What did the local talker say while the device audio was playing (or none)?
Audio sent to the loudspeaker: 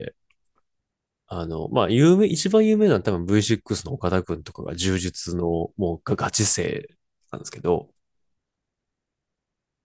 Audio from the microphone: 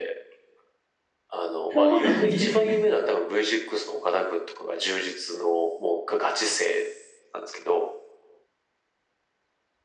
そうなんですね。